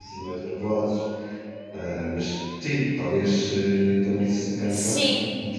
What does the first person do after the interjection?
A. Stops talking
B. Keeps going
B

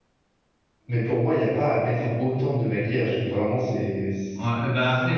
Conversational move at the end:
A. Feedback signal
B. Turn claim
B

